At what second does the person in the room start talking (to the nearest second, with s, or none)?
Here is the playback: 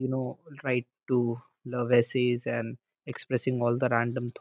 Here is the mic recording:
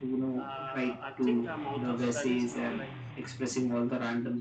0 s